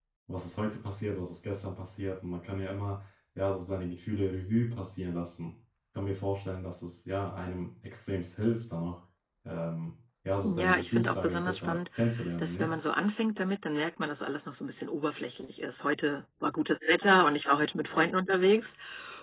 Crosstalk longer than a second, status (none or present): present